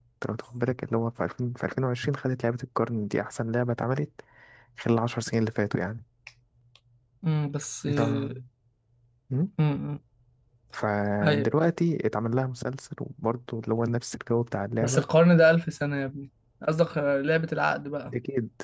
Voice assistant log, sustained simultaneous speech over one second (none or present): none